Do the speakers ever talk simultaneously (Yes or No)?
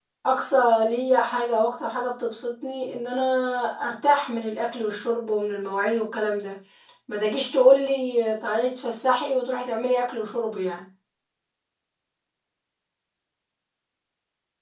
No